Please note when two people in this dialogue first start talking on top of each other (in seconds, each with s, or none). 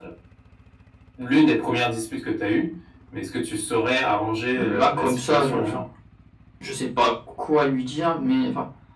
4.5 s